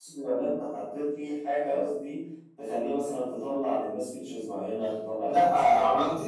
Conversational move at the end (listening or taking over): taking over